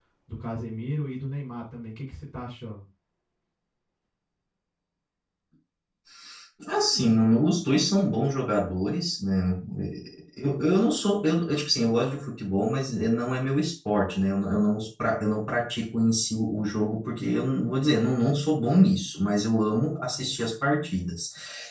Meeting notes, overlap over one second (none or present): none